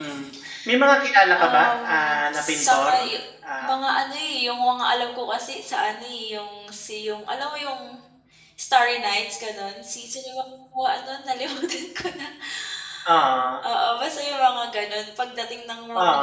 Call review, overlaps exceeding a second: present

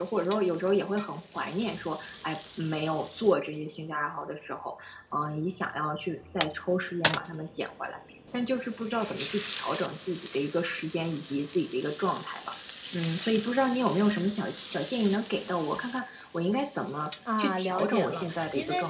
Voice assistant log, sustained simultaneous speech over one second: present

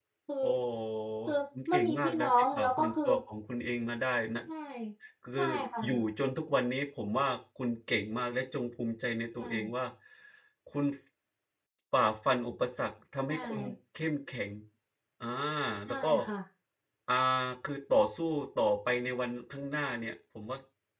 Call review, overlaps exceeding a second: present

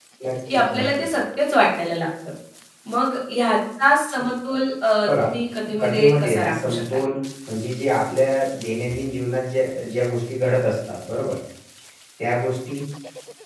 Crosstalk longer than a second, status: present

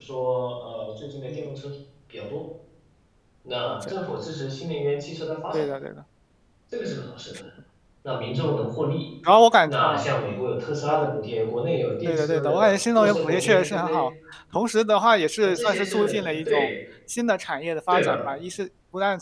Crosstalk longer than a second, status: present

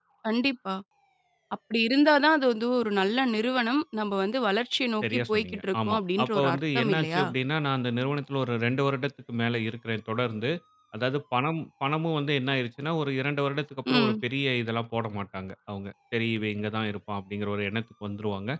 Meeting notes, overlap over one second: present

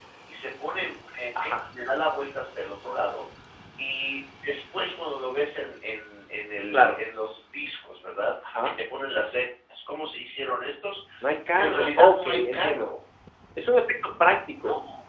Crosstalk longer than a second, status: present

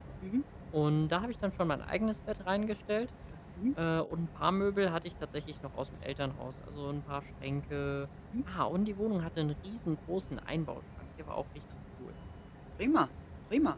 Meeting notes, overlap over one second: none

